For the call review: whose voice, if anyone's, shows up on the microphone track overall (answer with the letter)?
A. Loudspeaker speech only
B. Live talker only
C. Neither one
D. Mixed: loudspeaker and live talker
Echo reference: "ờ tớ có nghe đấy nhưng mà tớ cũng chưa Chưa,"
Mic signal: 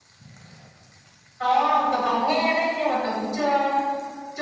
A